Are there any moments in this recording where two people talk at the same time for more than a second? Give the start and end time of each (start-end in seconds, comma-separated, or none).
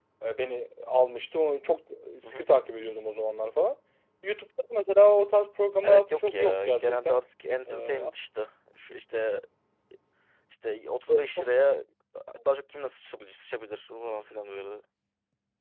5.8-7.2